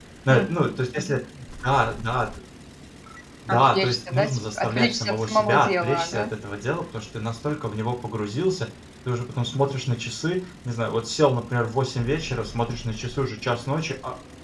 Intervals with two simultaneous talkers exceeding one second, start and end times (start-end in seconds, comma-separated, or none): 3.5-6.2